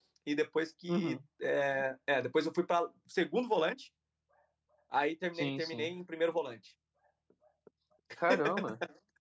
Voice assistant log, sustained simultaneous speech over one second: none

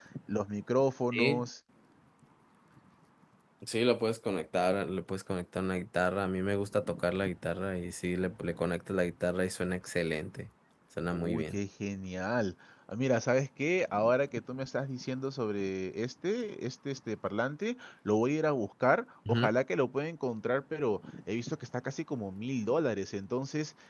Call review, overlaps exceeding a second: none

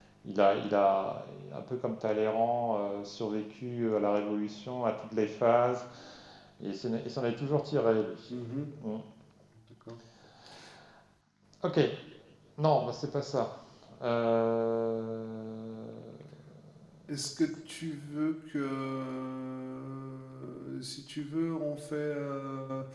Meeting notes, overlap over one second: none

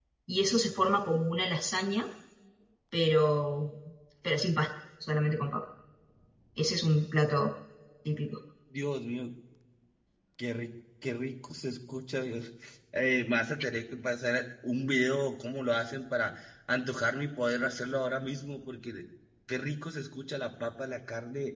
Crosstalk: none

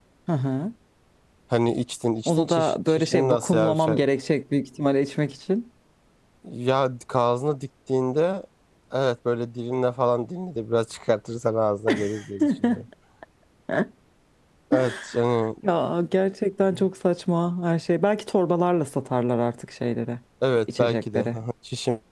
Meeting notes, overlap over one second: present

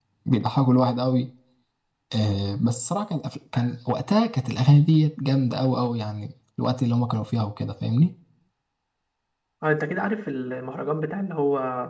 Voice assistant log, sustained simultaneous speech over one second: none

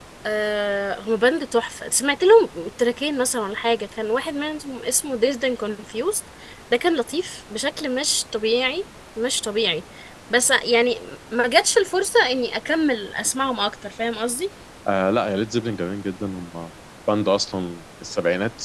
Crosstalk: none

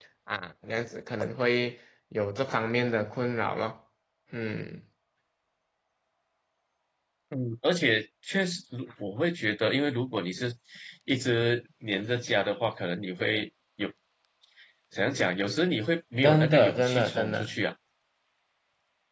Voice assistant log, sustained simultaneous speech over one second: present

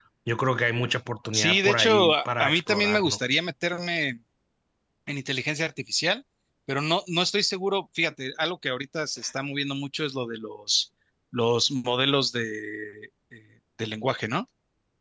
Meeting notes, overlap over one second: present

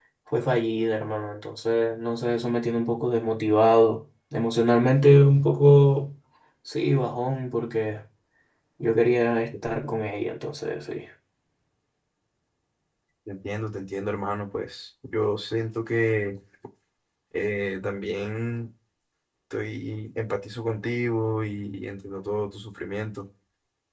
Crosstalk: none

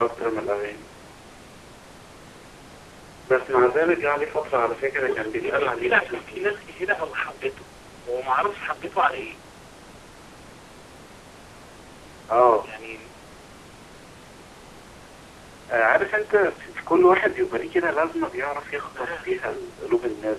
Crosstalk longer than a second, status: present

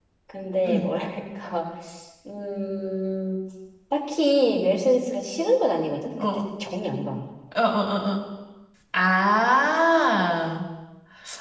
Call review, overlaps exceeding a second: none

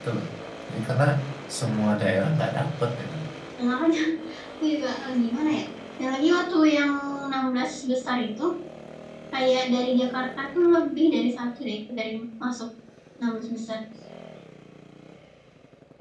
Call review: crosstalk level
none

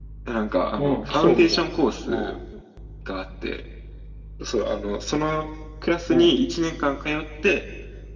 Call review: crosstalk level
present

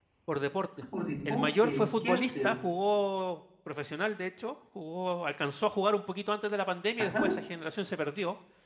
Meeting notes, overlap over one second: present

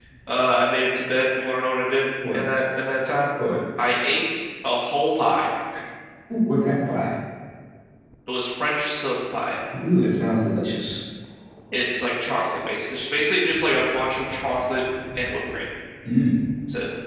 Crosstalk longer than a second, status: none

